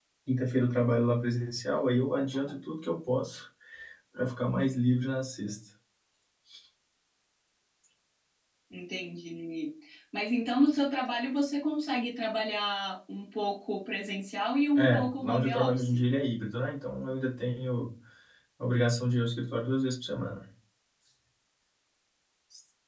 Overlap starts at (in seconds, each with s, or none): 14.8 s